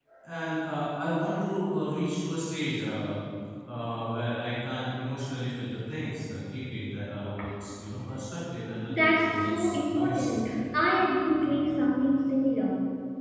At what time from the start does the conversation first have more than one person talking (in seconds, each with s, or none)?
8.9 s